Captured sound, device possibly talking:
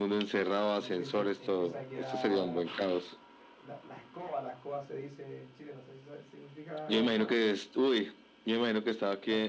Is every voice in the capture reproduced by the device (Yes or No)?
No